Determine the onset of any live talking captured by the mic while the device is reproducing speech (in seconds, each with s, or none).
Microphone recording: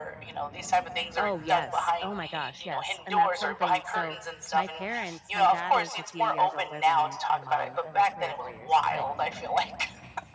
1.2 s